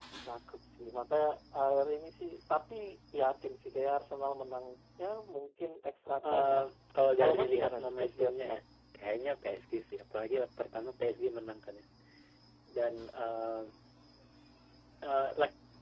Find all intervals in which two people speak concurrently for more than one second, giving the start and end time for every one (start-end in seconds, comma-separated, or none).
7.2-8.6